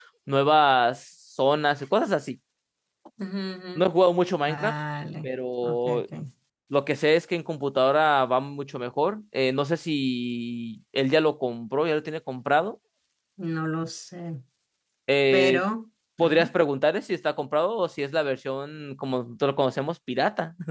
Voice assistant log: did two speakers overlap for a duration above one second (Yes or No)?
No